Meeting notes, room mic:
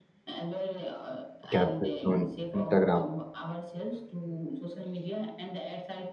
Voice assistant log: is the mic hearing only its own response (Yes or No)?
No